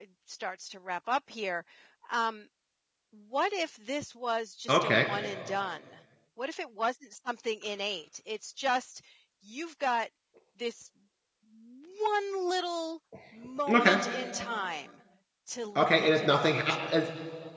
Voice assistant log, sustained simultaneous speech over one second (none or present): present